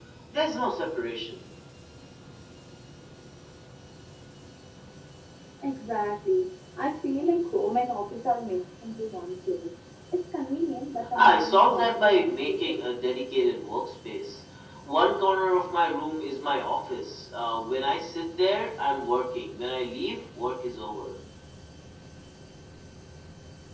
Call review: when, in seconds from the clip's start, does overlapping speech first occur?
11.2 s

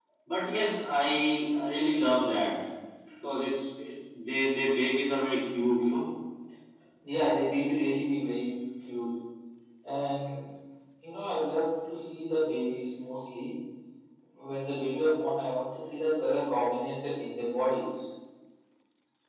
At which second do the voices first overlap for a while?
none

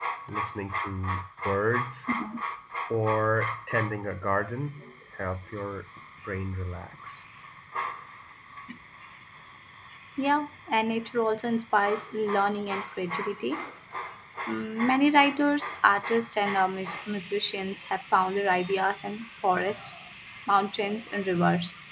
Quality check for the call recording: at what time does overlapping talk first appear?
none

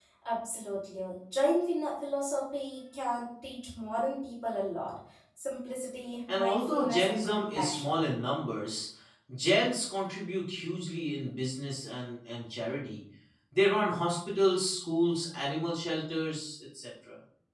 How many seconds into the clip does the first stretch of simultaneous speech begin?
6.3 s

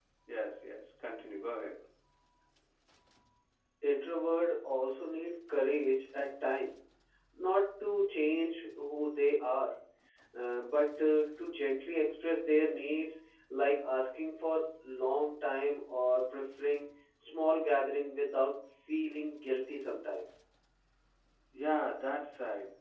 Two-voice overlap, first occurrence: none

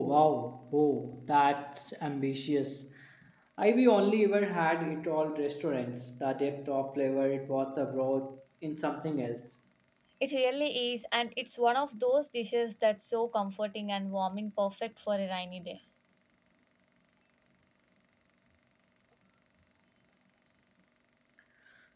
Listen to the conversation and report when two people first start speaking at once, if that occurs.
none

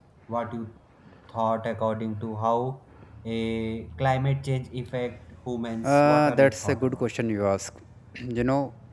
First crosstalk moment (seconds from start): 5.8 s

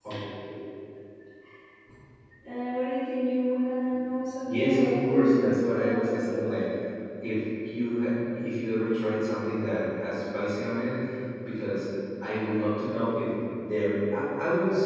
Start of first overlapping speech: 4.4 s

